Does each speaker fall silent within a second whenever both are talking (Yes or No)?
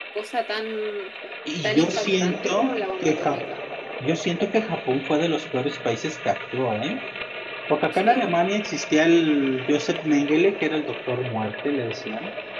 No